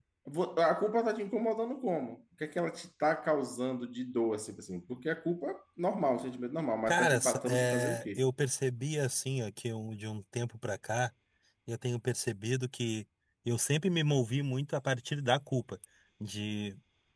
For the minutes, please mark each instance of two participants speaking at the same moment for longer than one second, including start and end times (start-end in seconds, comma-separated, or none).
6.9-8.2